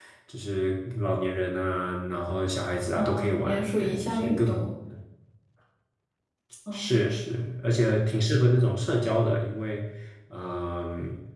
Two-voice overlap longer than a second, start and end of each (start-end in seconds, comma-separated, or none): 2.9-4.5